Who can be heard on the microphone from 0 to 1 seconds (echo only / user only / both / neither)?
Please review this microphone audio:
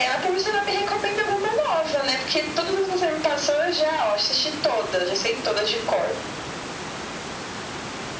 echo only